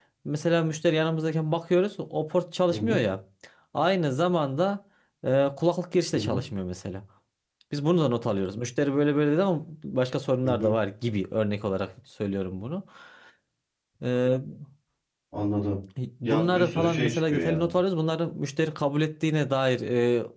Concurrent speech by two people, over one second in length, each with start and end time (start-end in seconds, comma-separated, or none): 16.2-17.7